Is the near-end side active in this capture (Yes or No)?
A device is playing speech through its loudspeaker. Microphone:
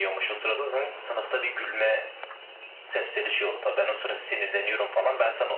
No